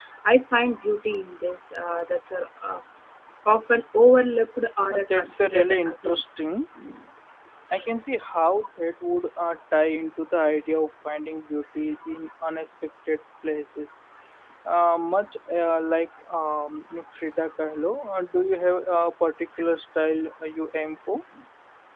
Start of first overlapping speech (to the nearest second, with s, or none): 5 s